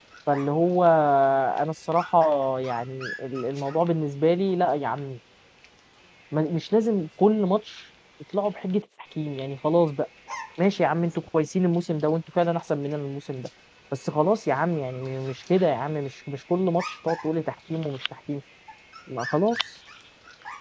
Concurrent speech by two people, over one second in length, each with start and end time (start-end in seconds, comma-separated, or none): none